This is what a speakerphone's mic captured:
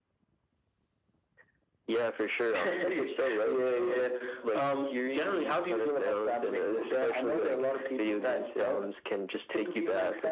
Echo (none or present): present